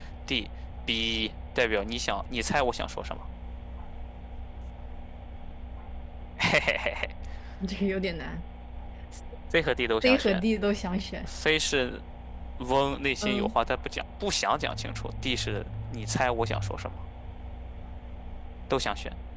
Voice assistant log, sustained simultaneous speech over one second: none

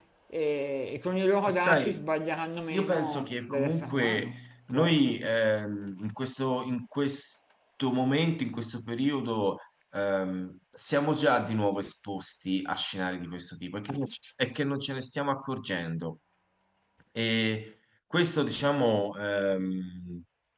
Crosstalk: present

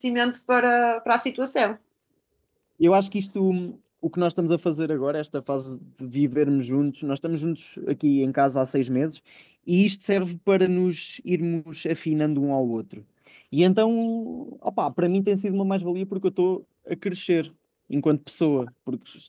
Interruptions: none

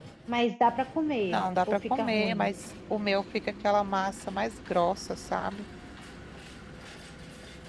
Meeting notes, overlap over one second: present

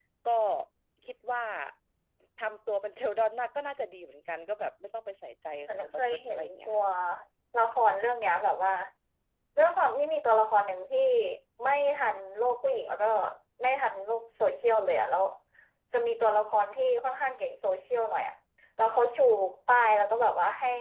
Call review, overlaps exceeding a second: present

